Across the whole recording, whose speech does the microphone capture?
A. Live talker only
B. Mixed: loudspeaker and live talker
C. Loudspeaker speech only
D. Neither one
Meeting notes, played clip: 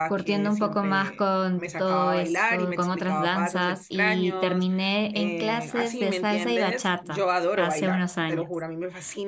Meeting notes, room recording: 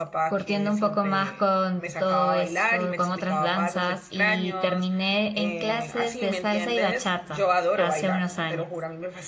C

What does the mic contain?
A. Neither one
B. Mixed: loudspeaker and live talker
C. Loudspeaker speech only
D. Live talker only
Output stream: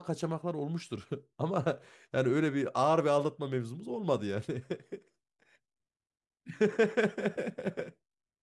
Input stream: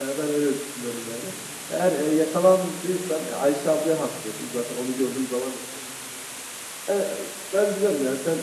D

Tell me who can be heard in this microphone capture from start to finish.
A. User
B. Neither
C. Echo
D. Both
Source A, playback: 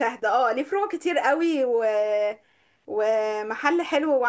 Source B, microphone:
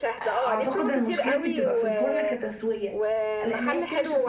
D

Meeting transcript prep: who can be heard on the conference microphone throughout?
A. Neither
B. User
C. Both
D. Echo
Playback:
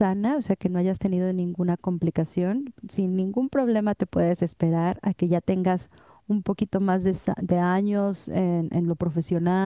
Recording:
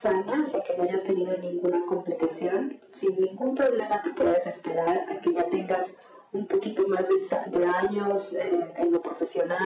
D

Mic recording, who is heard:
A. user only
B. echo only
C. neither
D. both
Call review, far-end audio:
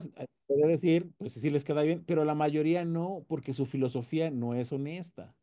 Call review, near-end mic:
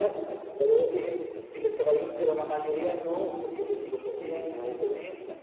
B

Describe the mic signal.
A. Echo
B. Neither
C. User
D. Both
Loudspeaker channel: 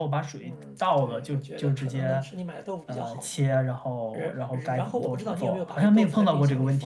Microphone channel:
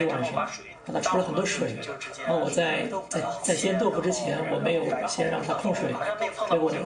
D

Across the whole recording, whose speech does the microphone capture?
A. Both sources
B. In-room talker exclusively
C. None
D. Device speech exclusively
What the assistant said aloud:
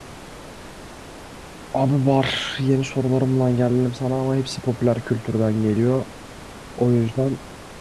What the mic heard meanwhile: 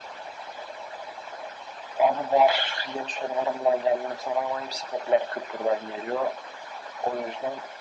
D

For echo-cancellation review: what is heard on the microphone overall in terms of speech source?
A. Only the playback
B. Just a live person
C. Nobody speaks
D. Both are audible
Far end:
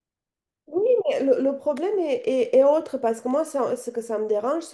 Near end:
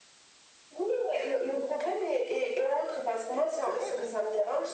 D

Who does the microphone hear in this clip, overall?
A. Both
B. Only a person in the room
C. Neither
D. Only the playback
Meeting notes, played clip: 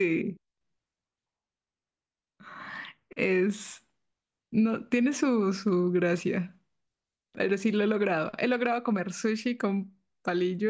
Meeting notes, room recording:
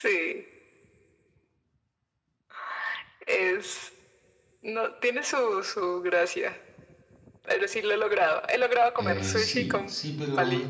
A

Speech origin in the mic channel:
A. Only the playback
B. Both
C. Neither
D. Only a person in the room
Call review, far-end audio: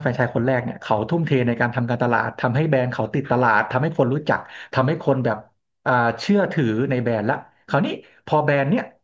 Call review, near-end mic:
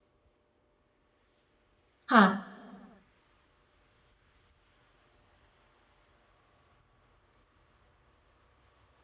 D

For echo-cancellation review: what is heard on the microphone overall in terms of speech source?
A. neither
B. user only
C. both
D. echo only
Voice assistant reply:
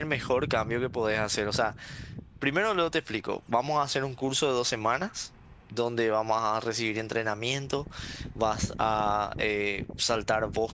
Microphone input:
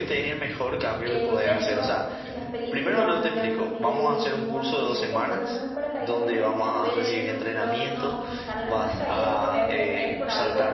C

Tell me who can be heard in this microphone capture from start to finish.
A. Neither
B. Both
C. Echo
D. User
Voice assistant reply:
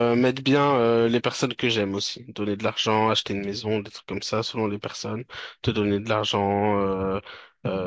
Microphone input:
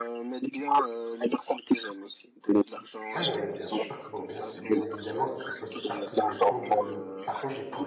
B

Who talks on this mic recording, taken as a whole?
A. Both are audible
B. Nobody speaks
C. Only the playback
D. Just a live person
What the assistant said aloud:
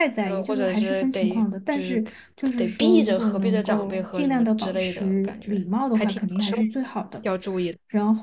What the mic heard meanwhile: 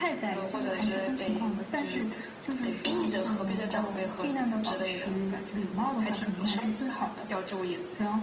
C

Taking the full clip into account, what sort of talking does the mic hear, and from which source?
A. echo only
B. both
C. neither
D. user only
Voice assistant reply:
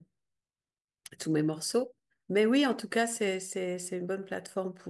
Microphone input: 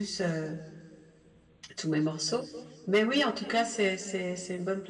A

